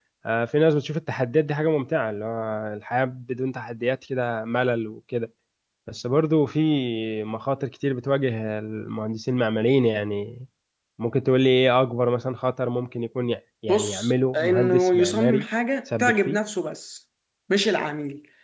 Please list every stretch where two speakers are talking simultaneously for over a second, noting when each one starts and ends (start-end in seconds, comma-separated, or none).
13.7-15.4